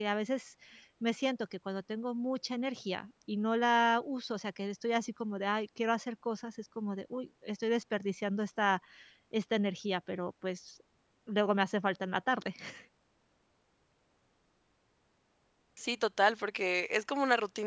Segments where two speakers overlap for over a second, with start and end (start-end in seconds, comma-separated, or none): none